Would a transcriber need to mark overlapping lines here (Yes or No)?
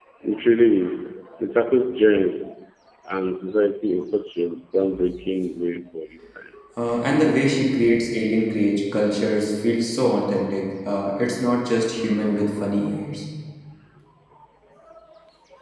No